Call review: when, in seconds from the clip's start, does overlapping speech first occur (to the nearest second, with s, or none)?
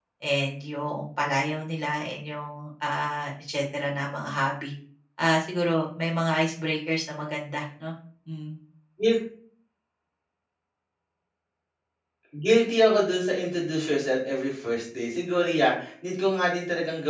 none